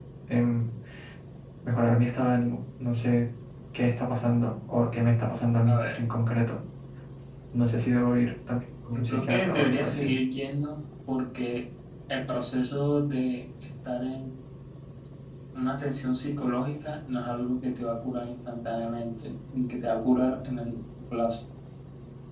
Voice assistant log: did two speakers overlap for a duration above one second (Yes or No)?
Yes